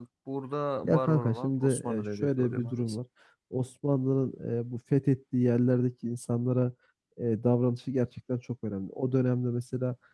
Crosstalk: present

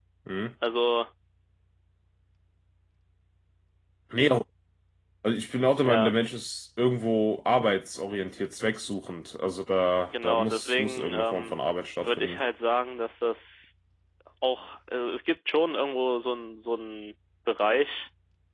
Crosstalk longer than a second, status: present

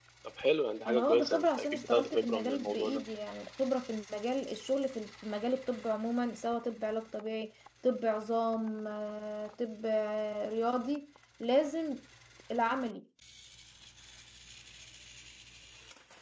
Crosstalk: present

